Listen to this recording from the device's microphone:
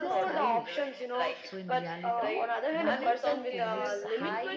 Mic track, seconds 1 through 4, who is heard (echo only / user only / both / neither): both